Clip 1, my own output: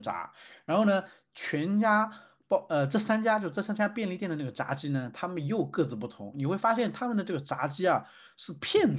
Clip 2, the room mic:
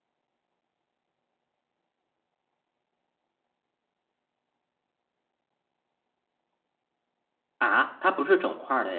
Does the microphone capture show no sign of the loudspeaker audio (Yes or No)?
Yes